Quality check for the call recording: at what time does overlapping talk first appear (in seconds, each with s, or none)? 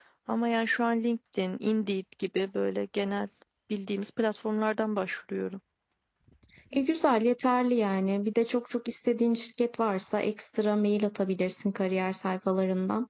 none